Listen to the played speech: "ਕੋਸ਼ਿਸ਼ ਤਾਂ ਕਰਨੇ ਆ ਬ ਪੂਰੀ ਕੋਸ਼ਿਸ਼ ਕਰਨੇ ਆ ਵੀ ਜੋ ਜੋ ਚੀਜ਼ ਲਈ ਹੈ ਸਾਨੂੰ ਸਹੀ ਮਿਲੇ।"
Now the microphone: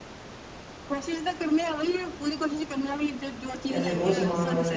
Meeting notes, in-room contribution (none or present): present